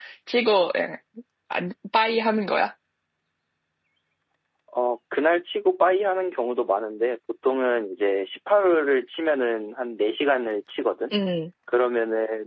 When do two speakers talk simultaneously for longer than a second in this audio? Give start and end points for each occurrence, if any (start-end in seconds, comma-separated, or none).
none